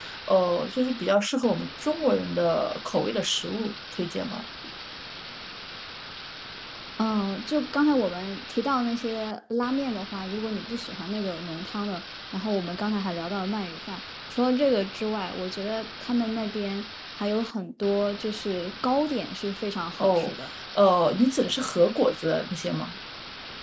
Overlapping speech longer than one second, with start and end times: none

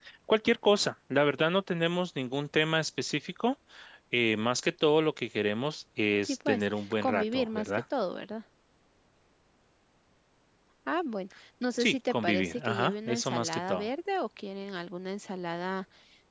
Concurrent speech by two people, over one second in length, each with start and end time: 6.2-7.8, 11.8-13.8

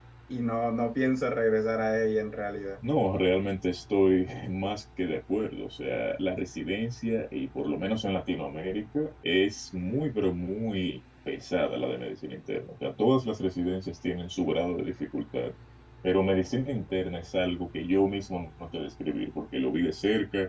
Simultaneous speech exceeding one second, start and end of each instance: none

